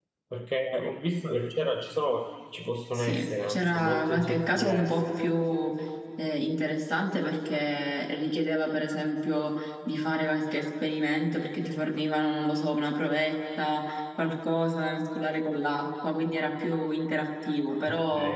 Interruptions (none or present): present